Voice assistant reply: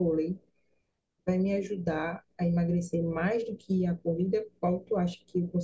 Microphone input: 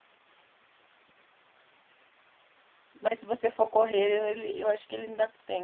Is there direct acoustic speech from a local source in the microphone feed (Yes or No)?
Yes